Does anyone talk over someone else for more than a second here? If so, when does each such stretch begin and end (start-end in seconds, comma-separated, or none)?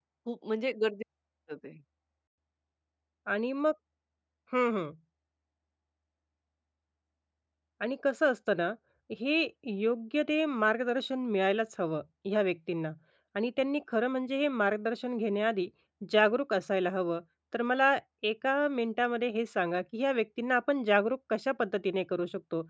none